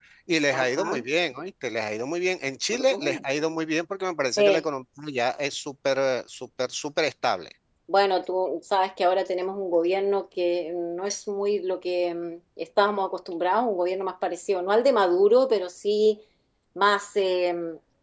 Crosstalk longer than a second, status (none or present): none